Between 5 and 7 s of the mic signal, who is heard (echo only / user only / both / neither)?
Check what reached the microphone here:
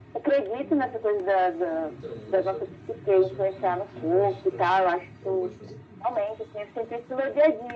both